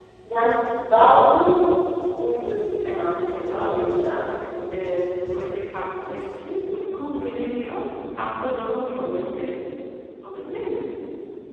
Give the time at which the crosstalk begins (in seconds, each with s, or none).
2.9 s